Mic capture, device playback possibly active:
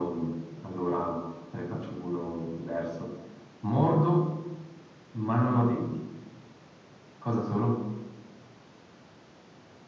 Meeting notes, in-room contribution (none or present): none